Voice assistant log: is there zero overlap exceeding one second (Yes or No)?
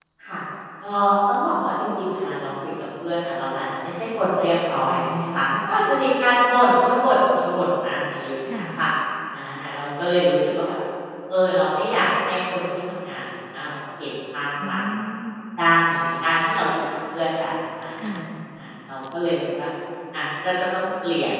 Yes